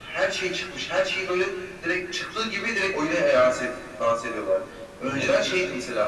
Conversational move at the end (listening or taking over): listening